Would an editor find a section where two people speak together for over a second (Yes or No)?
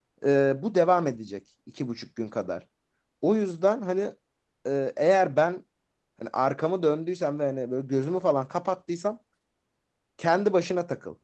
No